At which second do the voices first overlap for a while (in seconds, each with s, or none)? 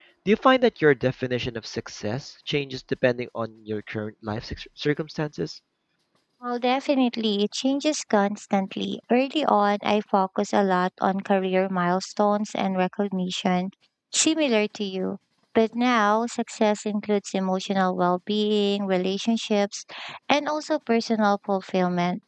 none